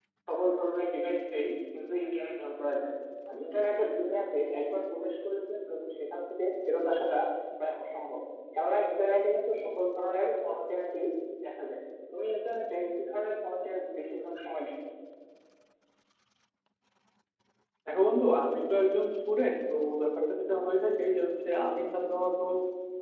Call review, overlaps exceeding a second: none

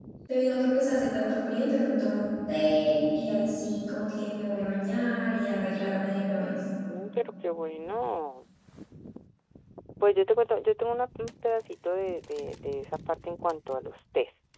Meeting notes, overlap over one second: none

